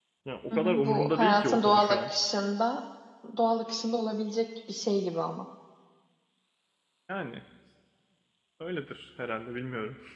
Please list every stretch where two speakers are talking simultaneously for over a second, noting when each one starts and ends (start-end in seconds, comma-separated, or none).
0.5-2.1